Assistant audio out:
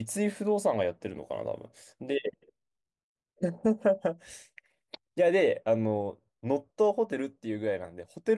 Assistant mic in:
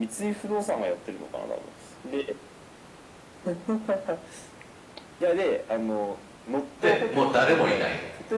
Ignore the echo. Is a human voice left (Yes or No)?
Yes